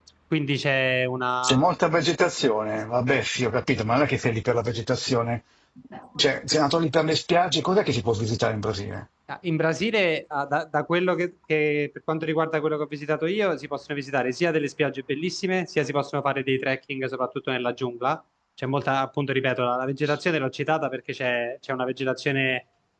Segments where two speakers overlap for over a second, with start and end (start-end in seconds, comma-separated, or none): none